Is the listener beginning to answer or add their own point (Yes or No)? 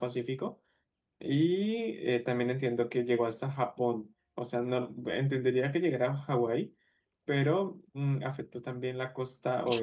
Yes